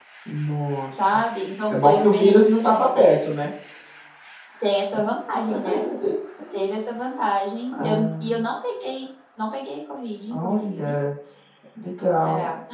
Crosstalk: present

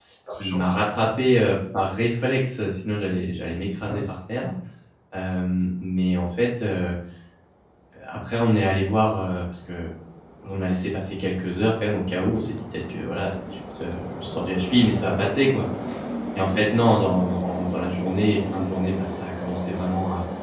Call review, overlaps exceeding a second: none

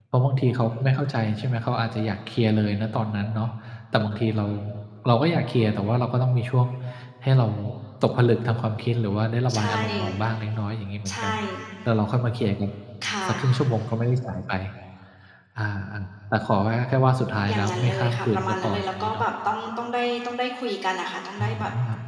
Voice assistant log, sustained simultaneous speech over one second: present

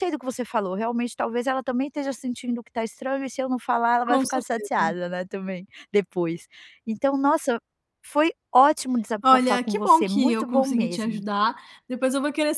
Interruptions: present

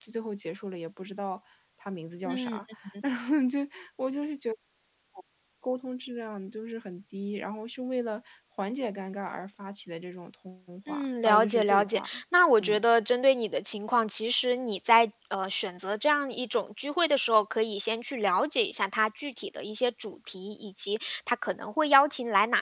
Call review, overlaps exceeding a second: present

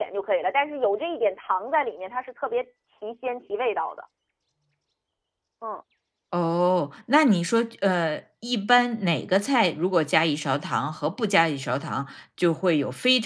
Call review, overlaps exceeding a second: none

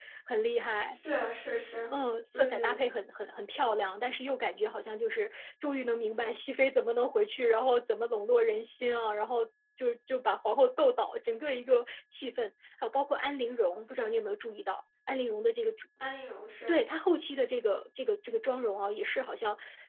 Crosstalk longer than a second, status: none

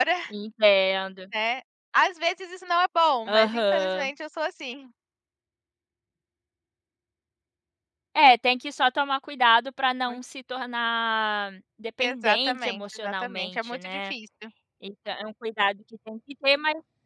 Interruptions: present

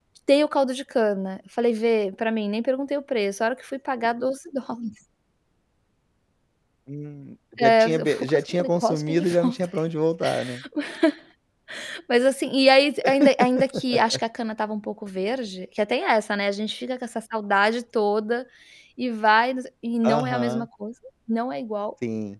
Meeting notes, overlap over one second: present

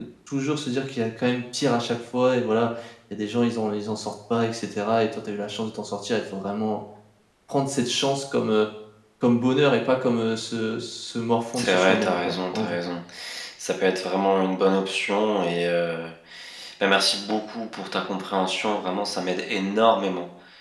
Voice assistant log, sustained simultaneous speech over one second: present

